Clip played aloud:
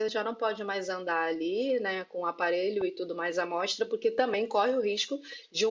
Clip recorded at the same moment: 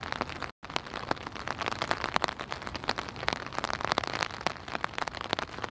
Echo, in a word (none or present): none